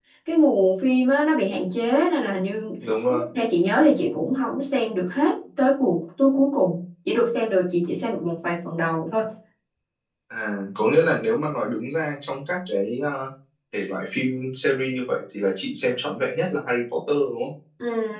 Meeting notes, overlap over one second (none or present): none